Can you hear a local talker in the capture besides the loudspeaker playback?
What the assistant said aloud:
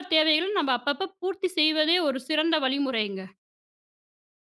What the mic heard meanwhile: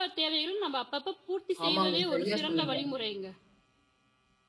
Yes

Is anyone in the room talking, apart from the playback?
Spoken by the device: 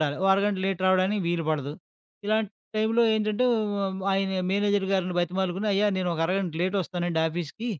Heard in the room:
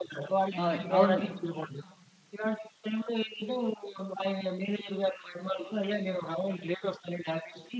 Yes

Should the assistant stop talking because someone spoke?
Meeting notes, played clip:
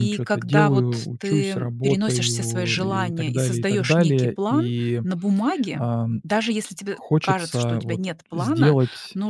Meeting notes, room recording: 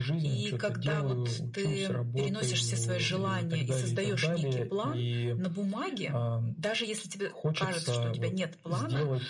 No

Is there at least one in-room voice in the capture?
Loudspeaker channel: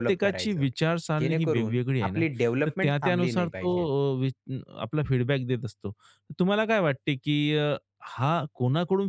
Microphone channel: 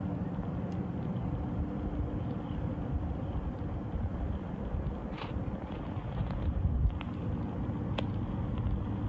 No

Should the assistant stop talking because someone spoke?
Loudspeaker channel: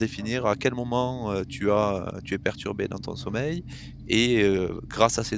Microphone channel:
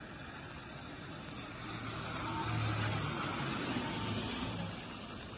No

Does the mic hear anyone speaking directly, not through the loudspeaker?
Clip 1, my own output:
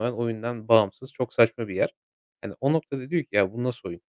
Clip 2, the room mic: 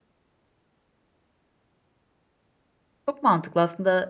Yes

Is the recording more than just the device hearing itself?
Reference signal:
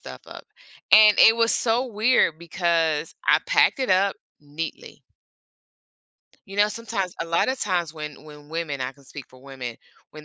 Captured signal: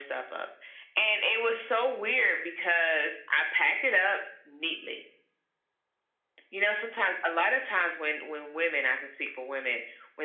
No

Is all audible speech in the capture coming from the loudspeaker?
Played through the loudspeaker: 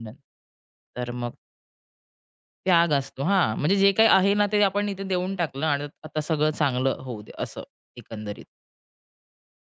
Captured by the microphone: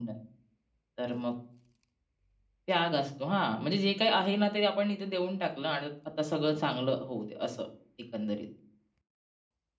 Yes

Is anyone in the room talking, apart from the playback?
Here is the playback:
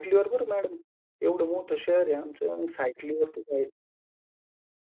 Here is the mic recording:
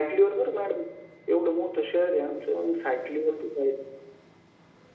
No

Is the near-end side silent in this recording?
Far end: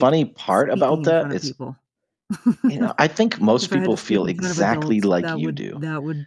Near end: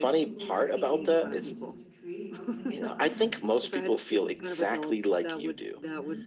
No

